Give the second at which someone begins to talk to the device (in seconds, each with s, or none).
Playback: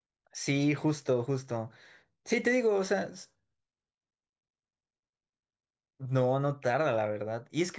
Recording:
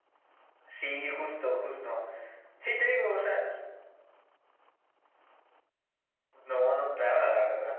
none